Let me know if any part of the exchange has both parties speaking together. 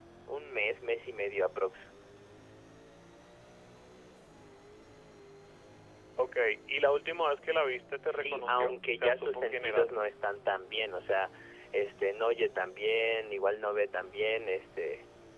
Yes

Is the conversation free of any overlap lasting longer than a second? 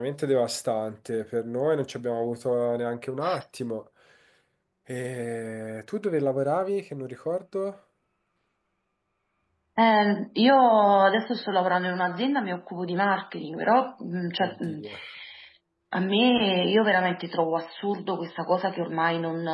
Yes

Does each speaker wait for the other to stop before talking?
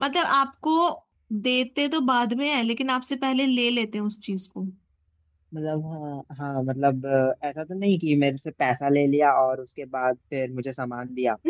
Yes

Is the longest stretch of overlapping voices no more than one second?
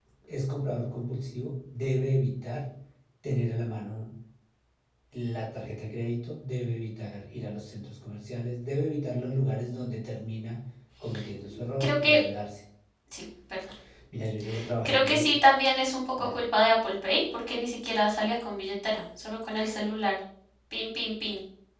Yes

